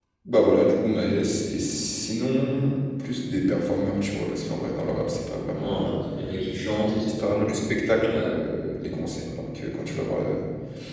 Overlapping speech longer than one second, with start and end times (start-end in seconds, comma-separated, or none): none